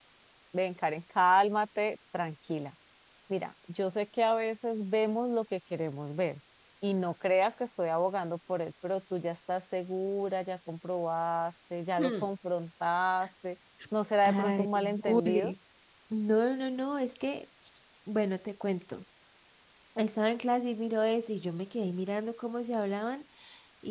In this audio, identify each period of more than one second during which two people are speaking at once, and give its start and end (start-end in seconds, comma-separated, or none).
14.2-15.5